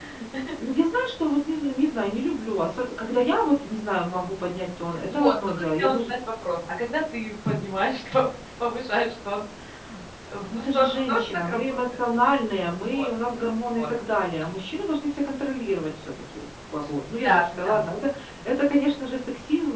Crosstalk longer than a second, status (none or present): present